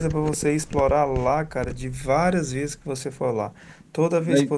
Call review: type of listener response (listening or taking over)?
listening